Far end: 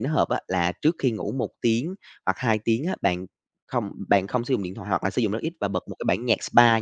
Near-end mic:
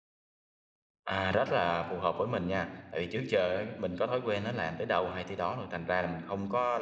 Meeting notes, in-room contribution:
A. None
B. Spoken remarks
B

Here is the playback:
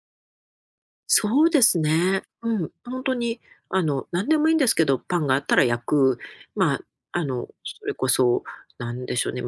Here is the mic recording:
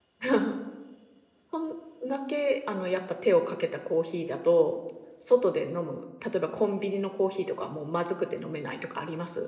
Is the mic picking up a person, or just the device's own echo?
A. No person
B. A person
B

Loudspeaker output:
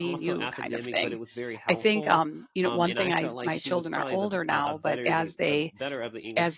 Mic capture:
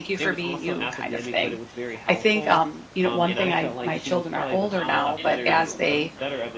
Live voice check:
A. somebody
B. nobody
A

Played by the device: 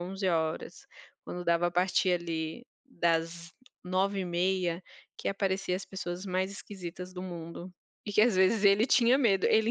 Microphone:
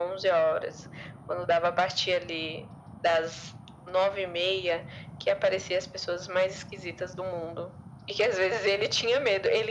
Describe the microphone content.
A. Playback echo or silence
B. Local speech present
A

